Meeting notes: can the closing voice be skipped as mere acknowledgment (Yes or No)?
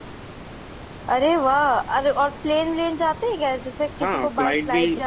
No